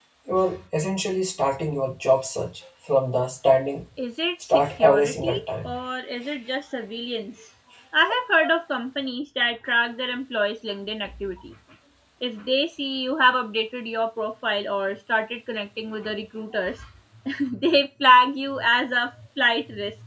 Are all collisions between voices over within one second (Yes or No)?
No